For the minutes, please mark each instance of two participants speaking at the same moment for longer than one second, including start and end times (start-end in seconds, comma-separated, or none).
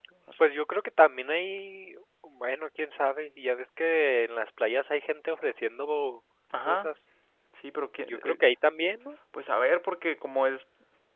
none